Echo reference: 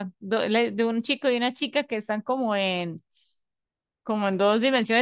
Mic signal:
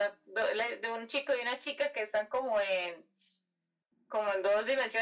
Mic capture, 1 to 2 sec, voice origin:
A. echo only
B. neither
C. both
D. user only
A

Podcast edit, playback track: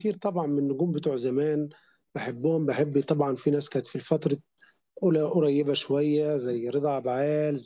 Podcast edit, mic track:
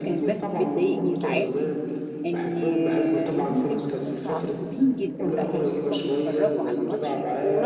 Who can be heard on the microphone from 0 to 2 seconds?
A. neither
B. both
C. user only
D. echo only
B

